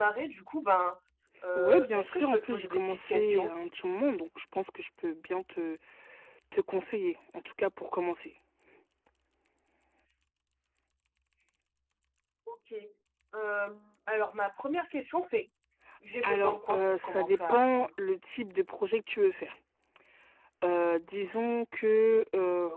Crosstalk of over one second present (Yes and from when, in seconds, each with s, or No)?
Yes, from 1.6 s